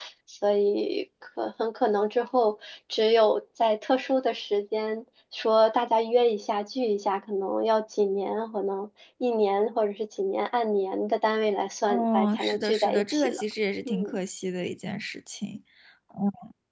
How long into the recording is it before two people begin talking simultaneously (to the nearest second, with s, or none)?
12 s